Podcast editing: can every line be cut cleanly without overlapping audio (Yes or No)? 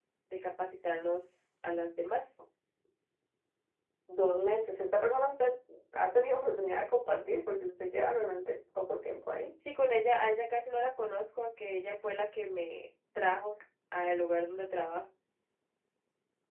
Yes